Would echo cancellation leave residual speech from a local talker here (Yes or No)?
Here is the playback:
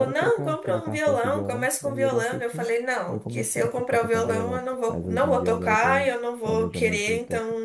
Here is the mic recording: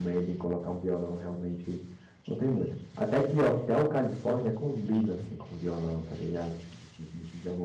Yes